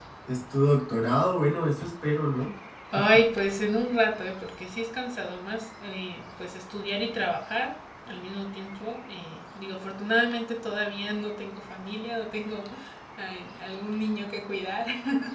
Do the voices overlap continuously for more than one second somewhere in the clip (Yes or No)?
No